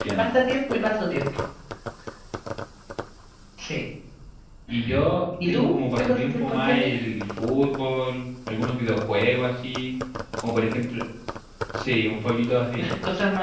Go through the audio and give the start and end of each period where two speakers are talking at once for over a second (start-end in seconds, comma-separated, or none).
5.4-6.9